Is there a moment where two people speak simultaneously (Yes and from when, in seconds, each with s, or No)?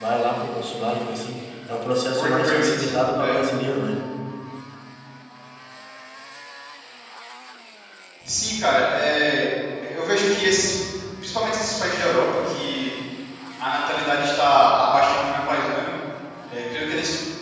Yes, from 2.1 s